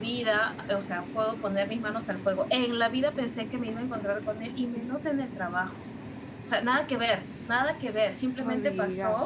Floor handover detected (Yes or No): No